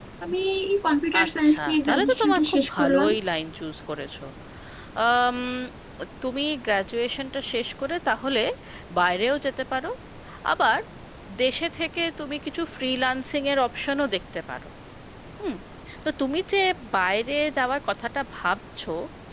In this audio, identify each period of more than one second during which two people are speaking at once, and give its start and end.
1.2-3.1

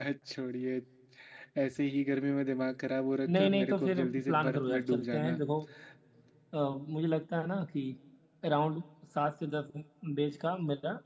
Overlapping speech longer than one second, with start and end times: 3.3-5.4

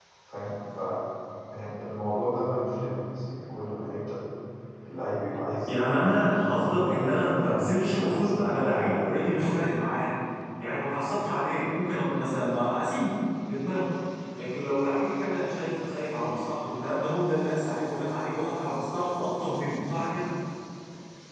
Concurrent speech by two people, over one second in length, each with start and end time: 5.7-9.7

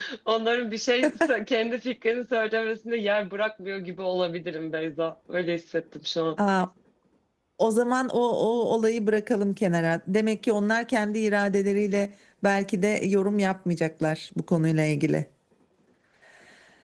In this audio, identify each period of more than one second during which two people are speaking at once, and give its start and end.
none

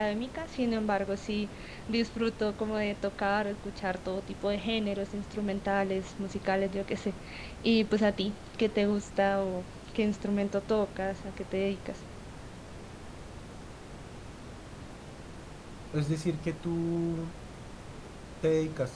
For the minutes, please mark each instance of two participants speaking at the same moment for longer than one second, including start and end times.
none

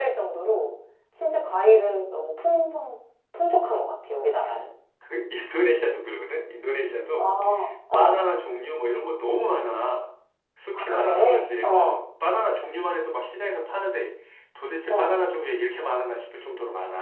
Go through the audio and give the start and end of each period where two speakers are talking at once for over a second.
10.7-12.0

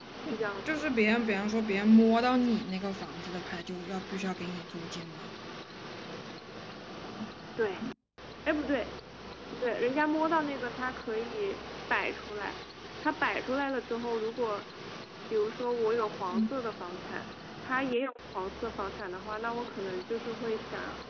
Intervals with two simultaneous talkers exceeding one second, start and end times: none

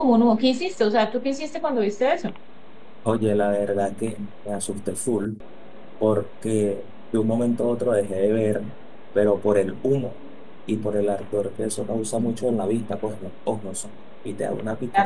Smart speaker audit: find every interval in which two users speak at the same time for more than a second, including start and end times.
none

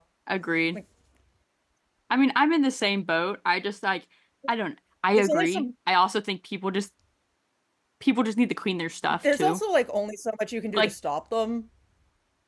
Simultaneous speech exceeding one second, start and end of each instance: none

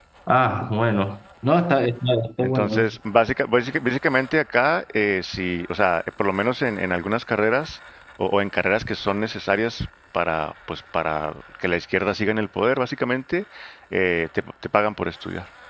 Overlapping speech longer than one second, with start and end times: none

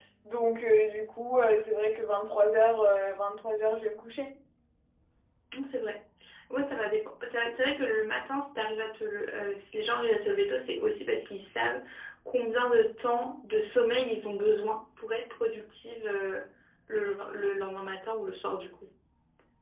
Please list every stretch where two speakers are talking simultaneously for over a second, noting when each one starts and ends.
none

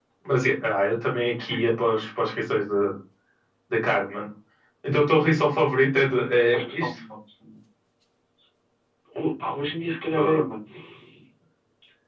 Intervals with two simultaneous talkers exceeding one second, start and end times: none

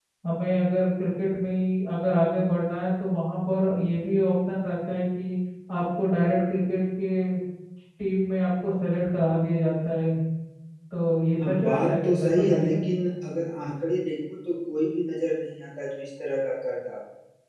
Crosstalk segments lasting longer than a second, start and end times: 11.4-12.8

